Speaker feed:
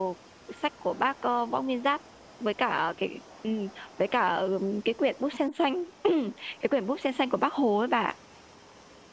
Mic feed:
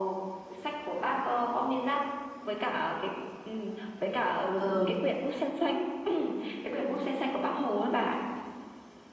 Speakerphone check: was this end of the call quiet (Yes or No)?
No